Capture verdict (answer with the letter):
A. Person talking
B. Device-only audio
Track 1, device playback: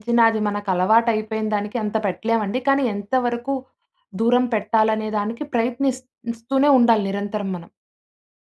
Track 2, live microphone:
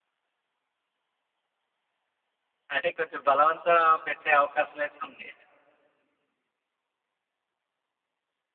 A